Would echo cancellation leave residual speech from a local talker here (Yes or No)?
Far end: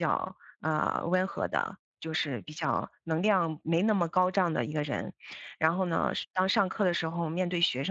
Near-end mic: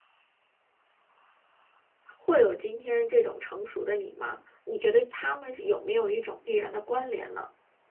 Yes